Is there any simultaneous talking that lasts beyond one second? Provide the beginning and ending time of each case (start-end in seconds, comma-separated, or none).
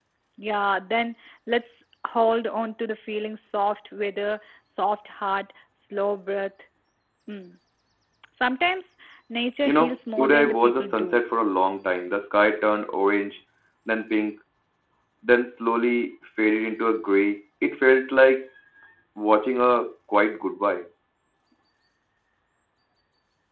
9.7-11.2